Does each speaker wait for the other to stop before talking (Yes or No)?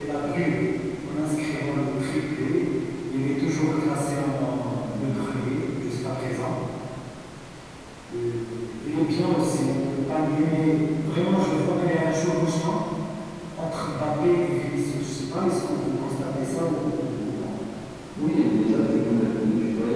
Yes